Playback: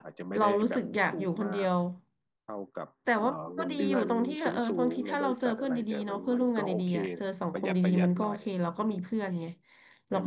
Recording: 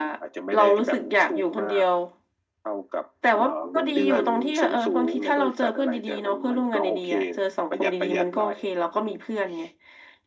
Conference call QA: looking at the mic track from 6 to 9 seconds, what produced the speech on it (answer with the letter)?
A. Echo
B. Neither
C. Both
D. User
A